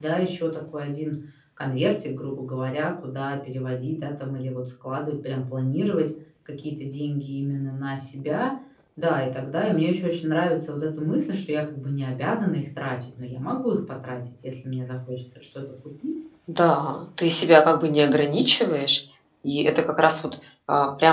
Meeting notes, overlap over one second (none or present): none